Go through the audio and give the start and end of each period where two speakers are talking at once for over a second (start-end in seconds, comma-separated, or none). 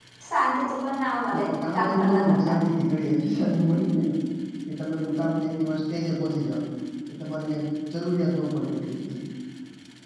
1.3-2.6